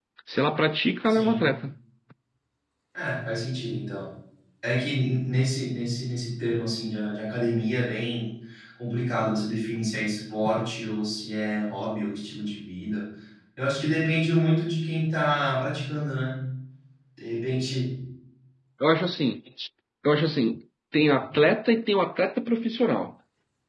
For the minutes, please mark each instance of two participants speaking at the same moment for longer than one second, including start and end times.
none

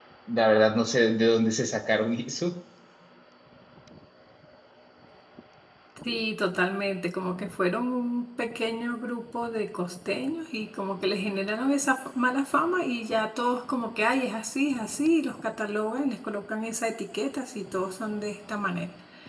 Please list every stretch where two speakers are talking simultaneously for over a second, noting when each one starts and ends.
none

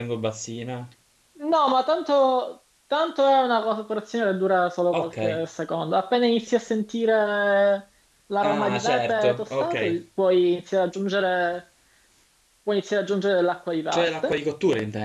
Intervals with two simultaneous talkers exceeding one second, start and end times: 8.4-9.8

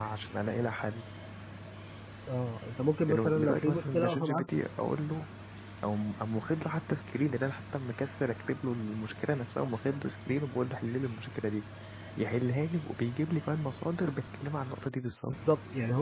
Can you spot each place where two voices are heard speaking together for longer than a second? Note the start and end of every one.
3.1-4.4

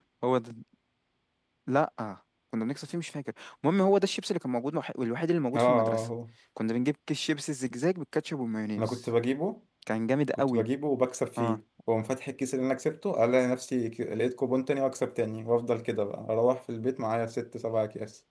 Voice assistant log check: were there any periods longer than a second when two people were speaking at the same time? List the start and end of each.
none

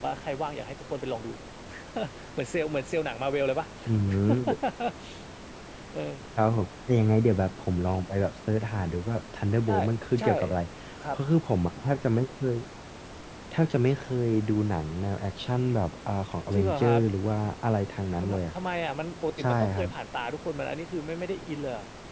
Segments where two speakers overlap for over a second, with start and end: none

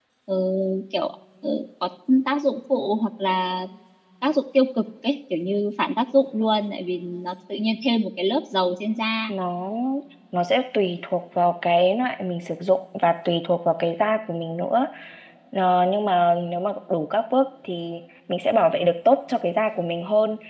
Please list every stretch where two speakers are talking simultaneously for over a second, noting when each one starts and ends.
none

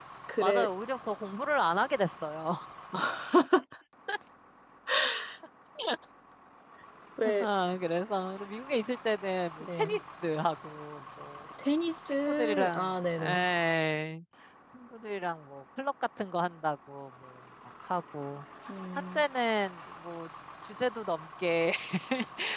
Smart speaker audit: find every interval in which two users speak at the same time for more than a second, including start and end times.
12.1-13.4

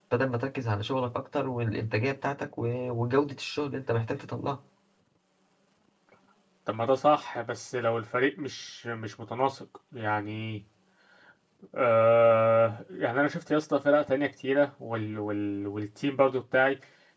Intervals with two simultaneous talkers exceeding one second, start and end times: none

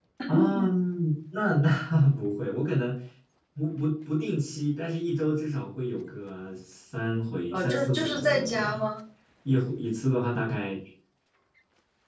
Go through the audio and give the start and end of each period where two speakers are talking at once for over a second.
7.5-8.9

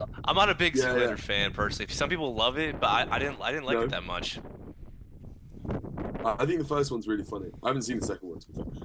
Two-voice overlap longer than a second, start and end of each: none

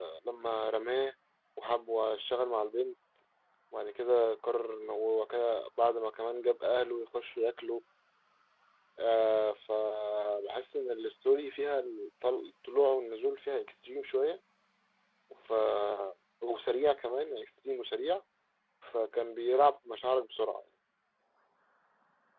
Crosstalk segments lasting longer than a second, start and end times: none

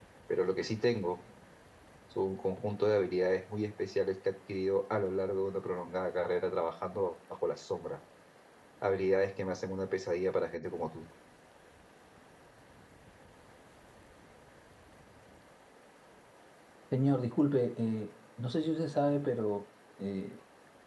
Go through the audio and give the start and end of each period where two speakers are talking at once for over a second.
none

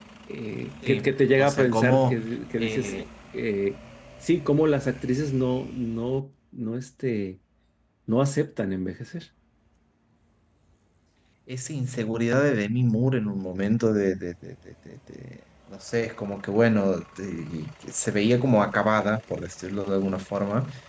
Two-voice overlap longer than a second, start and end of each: 0.9-2.1

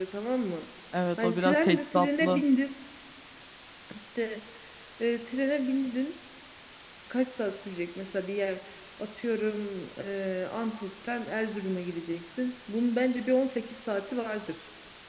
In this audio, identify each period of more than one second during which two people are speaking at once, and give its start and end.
1.2-2.4

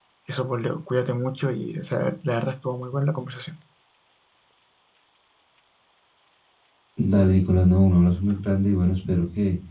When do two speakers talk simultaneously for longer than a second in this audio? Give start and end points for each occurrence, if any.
none

